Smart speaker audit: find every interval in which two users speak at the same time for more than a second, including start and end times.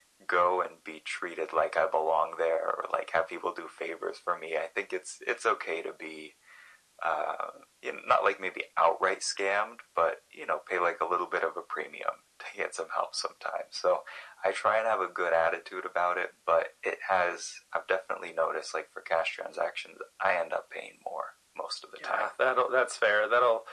none

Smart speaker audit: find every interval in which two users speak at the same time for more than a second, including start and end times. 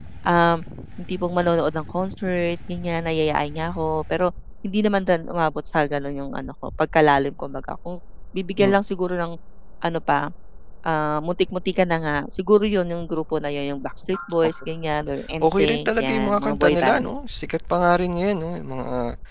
15.4-17.1

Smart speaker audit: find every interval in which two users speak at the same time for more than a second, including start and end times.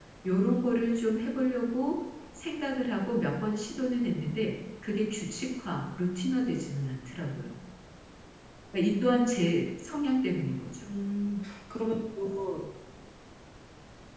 none

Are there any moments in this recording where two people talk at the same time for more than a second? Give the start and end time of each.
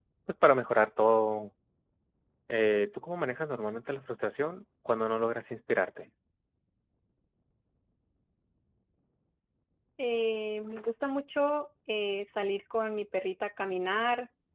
none

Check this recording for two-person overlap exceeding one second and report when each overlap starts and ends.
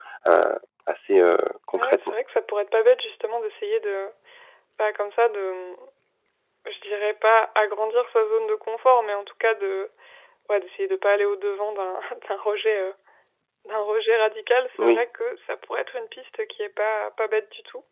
none

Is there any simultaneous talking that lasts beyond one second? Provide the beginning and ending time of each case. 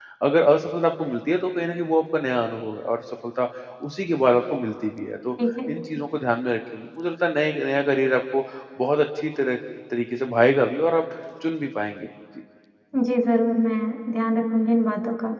none

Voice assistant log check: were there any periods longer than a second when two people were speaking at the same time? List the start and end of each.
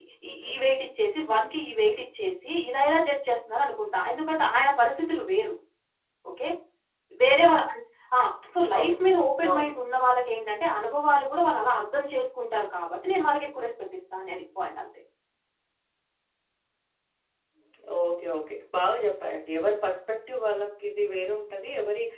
none

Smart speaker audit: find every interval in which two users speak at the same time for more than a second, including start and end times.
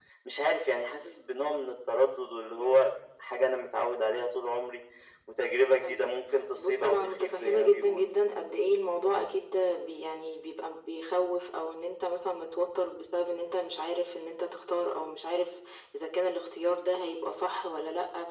6.6-8.1

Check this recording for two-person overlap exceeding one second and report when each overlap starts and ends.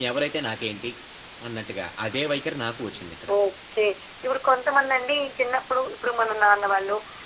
none

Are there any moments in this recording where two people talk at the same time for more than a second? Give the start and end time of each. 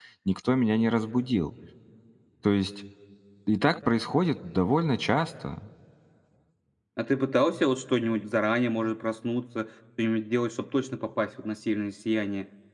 none

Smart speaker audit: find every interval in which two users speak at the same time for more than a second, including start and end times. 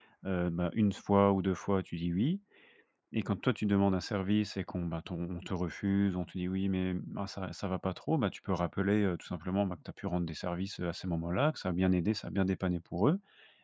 none

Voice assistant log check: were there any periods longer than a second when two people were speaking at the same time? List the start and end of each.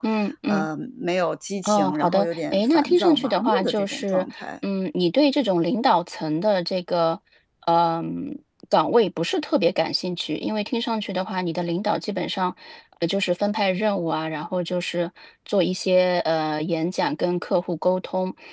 1.6-4.4

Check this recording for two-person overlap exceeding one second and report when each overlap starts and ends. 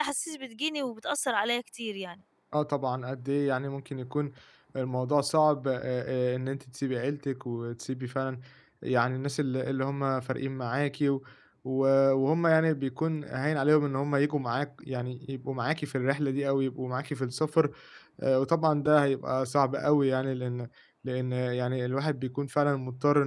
none

